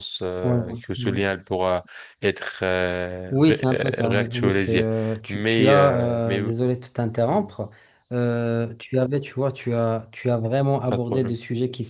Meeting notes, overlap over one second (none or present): present